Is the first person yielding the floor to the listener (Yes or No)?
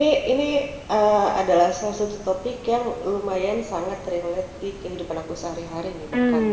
Yes